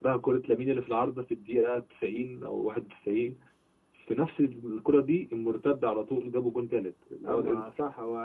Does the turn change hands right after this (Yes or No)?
Yes